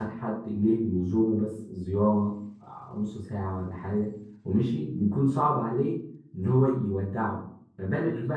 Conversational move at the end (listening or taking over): listening